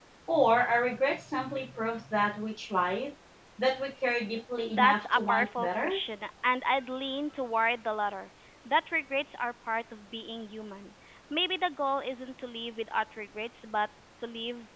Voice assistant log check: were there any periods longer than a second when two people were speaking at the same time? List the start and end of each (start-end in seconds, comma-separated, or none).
4.7-6.0